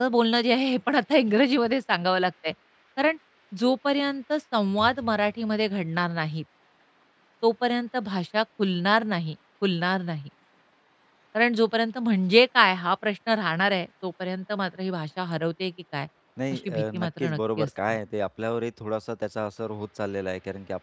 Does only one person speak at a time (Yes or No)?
No